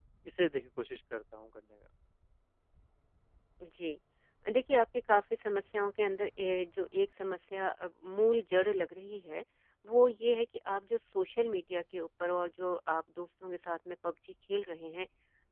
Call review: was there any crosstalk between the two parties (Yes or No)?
No